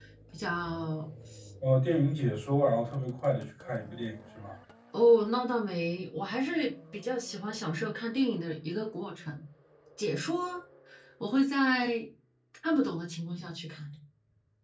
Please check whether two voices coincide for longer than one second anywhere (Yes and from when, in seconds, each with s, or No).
No